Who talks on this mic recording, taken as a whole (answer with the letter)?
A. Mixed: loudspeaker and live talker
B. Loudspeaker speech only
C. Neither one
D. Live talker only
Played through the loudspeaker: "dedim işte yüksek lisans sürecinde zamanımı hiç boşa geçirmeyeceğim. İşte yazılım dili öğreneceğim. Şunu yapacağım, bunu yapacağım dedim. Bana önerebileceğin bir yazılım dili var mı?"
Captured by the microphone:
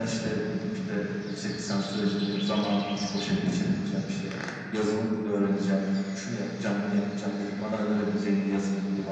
B